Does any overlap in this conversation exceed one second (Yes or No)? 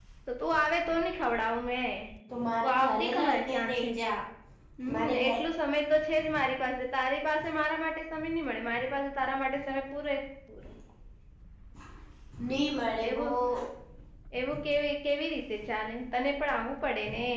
Yes